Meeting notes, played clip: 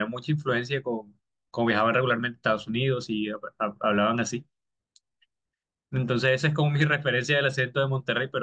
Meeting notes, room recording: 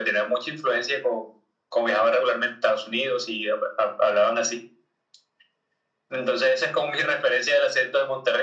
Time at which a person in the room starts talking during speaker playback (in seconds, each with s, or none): none